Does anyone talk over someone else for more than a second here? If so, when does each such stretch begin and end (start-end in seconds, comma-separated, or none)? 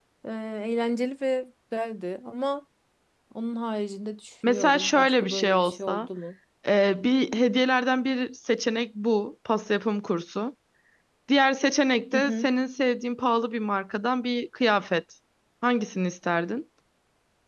4.5-6.1